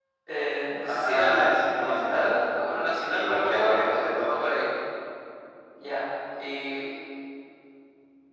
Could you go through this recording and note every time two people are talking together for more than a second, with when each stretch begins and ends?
0.8-2.3, 3.1-4.4

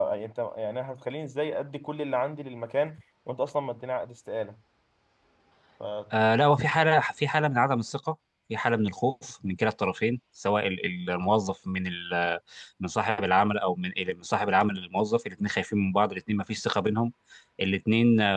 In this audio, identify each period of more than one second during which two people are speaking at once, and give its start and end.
none

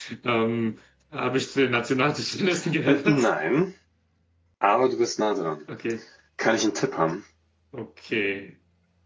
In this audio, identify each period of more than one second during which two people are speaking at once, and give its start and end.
none

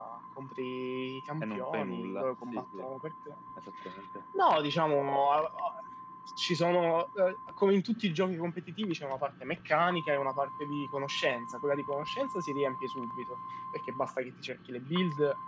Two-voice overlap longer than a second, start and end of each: 1.4-2.9

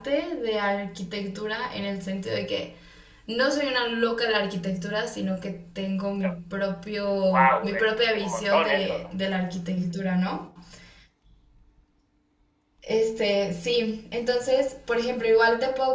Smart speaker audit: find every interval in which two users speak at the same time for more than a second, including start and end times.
7.2-9.1

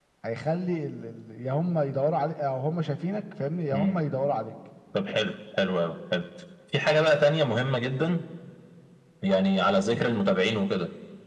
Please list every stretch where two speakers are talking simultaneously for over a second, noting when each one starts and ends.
none

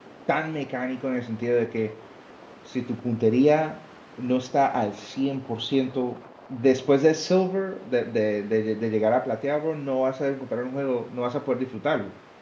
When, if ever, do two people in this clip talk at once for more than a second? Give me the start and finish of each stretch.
none

